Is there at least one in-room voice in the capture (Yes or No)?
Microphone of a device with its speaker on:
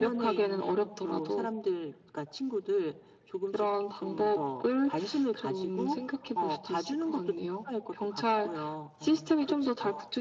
No